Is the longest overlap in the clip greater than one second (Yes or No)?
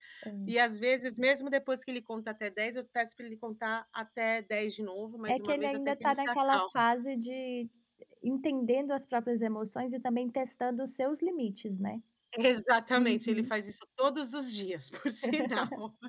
Yes